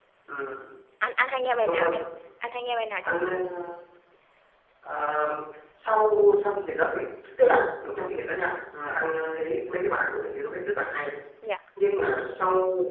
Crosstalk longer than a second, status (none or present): none